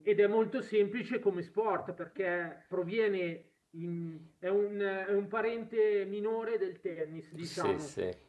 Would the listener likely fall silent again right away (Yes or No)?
No